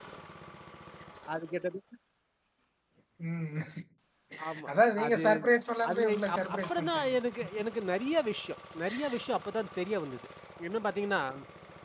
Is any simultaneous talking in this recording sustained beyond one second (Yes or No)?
Yes